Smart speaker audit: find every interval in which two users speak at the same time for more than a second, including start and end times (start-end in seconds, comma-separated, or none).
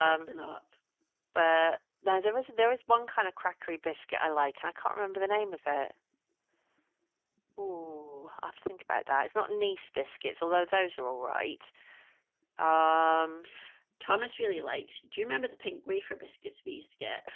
none